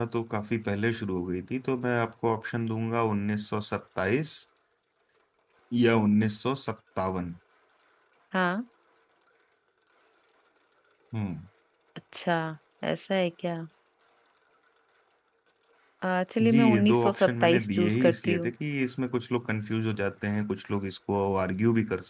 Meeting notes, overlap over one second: present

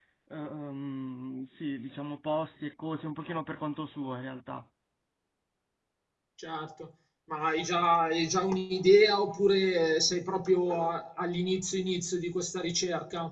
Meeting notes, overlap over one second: none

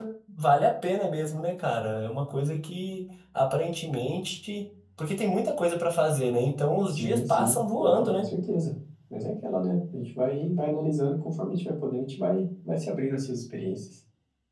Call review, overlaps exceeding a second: present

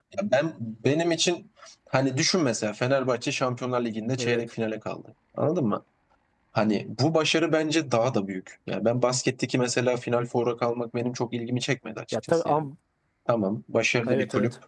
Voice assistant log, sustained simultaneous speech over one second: none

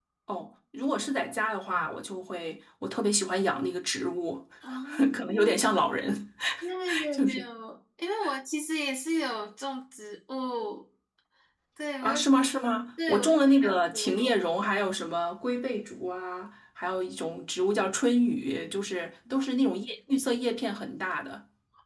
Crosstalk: present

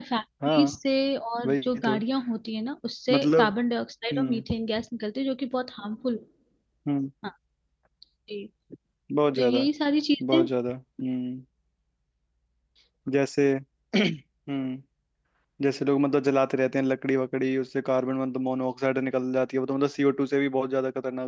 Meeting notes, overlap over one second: none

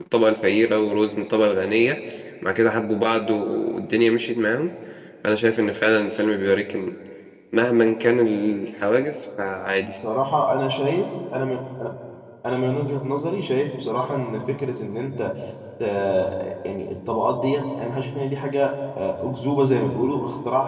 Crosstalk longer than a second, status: none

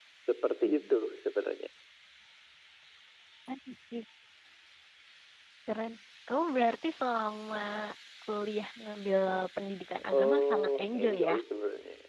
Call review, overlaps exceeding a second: present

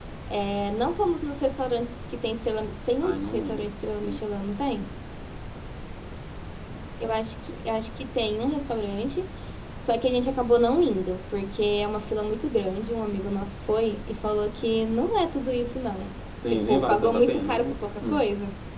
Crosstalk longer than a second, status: present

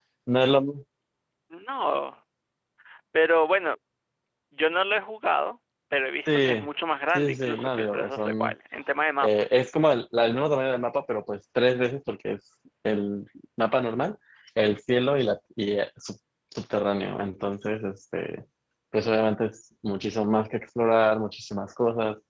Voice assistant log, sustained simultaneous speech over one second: present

